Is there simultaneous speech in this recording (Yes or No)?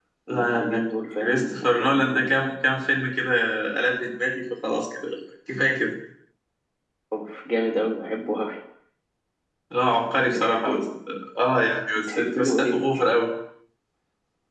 Yes